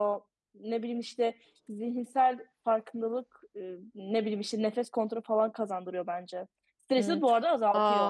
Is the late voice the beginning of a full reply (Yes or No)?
Yes